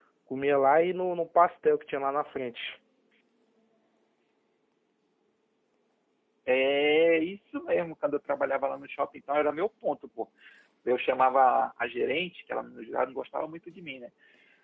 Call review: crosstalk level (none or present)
none